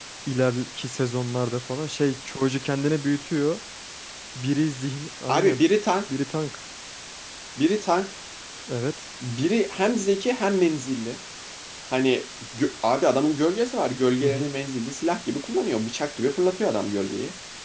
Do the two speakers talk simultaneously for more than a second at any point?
No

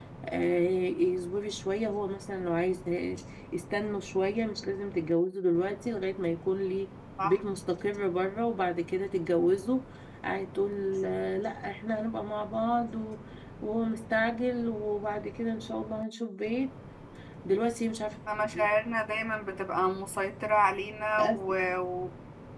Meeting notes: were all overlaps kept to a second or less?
Yes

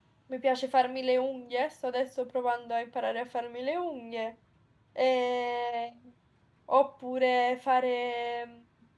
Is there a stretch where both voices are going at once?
No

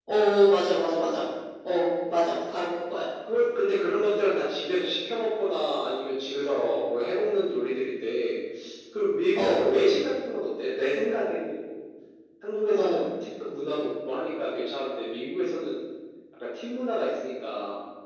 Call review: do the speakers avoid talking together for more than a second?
Yes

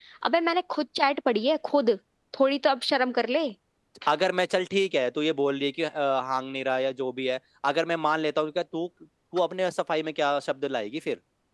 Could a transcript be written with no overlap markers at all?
Yes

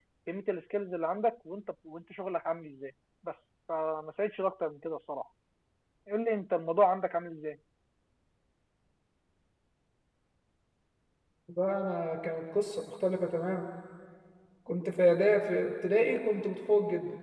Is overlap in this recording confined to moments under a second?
Yes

